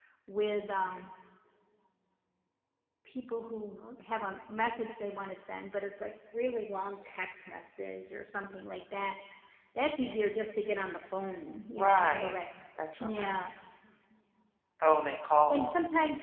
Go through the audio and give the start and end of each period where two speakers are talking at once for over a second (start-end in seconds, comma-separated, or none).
none